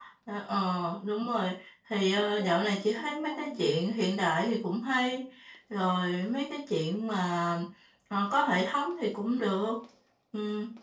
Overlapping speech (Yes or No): Yes